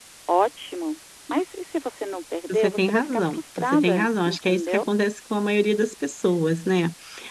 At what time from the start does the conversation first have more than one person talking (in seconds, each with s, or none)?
2.5 s